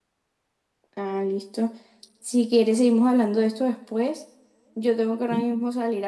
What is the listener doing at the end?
listening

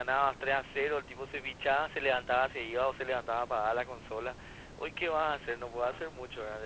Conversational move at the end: listening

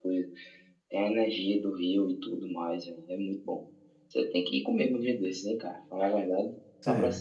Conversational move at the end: taking over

